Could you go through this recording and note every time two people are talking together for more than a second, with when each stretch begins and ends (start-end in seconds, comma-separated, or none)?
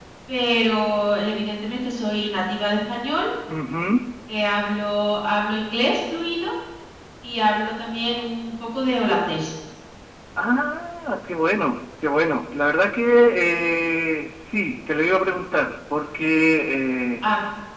none